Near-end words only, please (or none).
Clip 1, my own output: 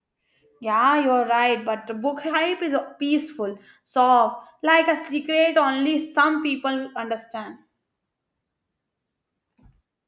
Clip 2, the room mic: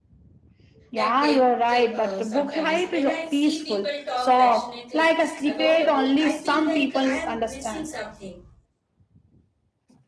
that depth uh, sometimes. When I see people talk passionately about a book, I feel like I am missing something.